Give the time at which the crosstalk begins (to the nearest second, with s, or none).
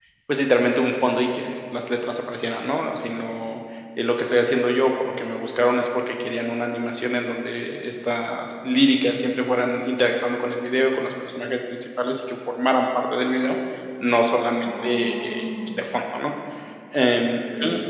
15 s